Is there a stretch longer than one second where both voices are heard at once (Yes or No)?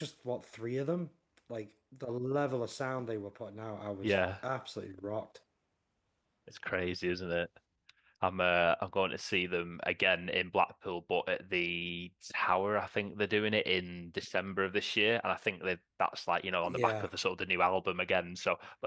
No